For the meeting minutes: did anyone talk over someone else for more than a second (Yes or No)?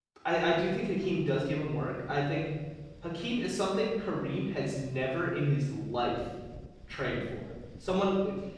No